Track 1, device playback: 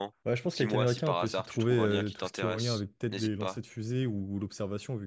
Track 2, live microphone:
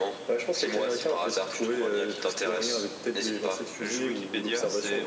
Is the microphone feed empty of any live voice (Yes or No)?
No